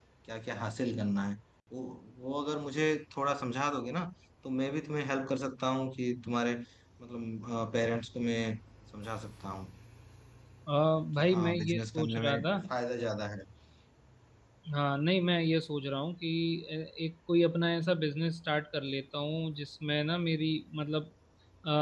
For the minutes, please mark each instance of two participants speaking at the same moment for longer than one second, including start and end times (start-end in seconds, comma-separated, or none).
11.2-12.5